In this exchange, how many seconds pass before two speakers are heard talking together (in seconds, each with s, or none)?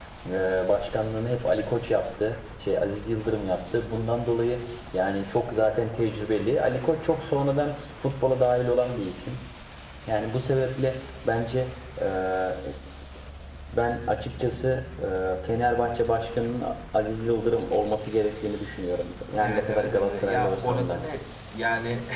19.4 s